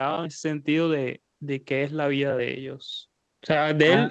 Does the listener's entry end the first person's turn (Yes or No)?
No